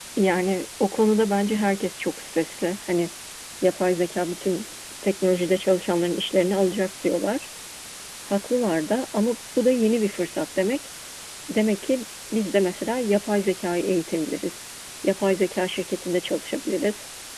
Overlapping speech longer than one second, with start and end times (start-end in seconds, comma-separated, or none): none